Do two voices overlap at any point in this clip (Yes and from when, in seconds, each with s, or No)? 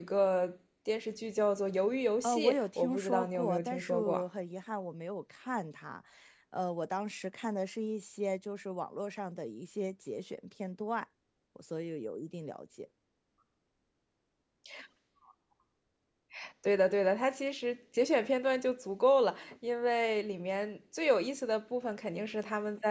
Yes, from 2.2 s